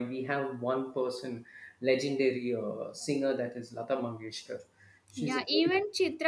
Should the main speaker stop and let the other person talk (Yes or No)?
Yes